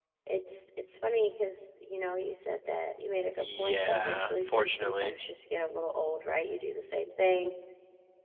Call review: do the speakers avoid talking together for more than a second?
No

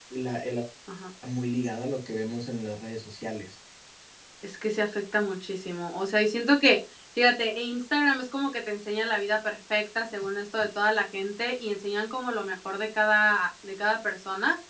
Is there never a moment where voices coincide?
Yes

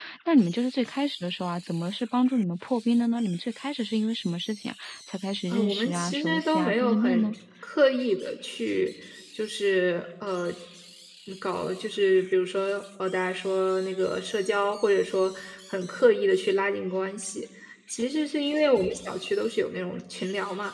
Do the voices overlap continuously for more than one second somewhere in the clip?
Yes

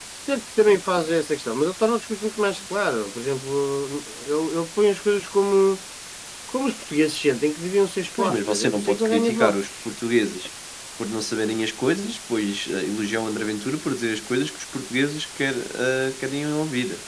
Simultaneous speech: Yes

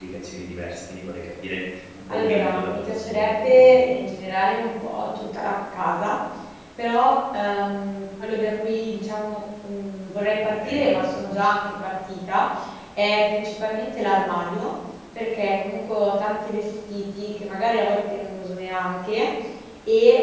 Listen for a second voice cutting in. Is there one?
Yes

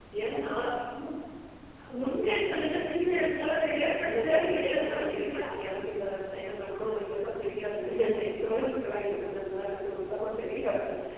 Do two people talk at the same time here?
Yes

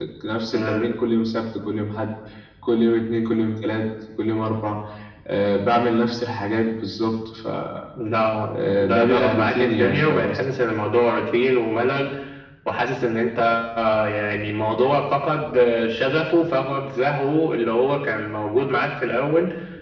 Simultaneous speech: Yes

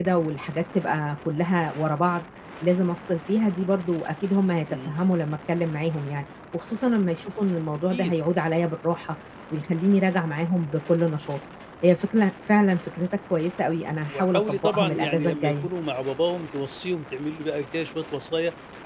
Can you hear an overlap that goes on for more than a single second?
Yes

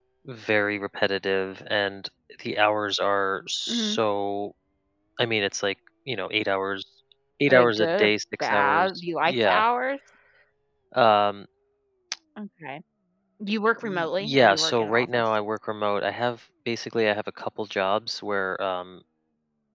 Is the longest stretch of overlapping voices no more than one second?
No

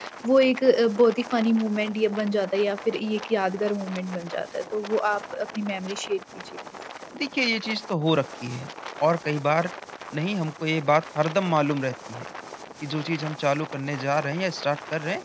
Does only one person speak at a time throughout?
Yes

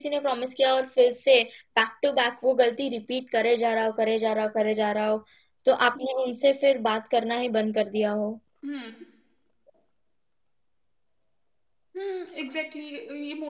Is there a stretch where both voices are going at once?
No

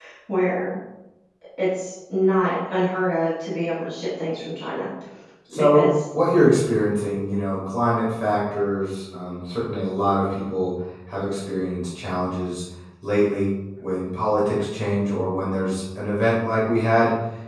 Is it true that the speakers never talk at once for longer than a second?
Yes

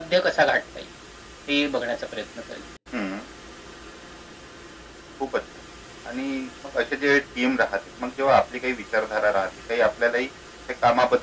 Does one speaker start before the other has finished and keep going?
No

